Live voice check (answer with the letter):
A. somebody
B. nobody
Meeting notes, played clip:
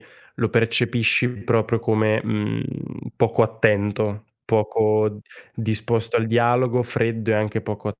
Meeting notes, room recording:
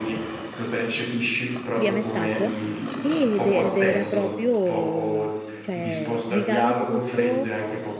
A